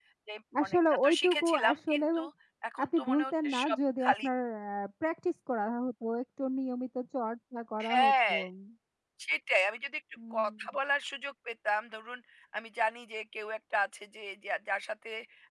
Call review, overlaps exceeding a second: present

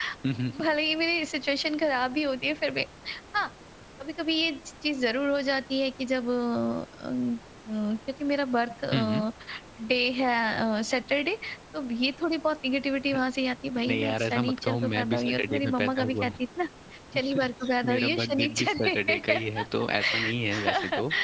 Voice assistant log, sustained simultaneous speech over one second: present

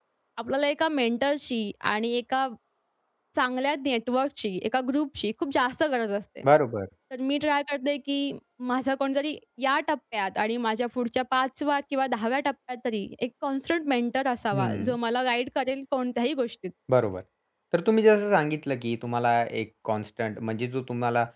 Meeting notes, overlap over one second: none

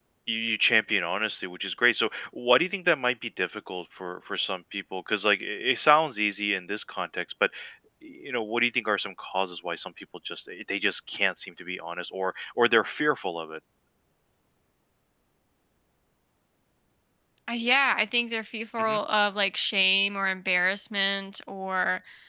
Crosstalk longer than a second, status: none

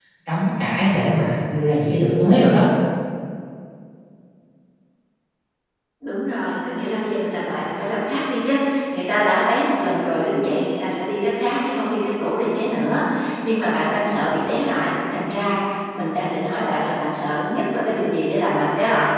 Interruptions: none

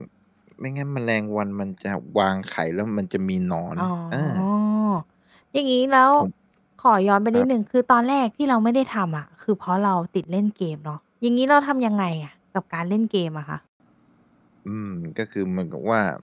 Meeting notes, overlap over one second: none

